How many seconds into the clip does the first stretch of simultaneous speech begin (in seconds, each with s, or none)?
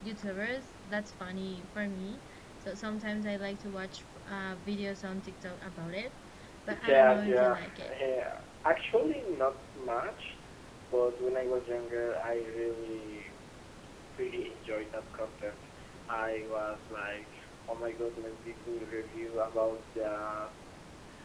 6.7 s